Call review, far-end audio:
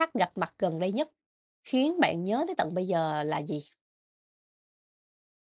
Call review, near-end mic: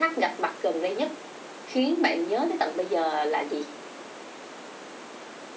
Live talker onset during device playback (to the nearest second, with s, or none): none